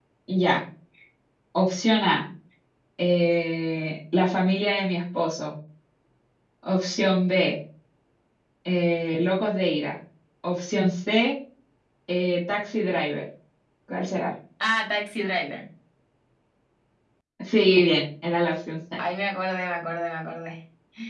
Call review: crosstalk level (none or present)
none